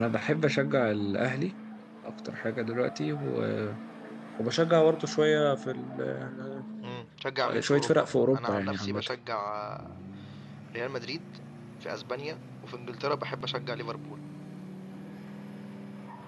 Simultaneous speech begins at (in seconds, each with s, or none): 7.6 s